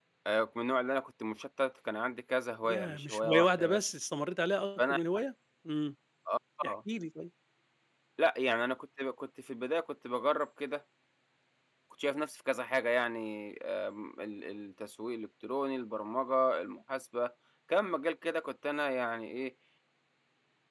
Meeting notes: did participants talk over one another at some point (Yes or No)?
Yes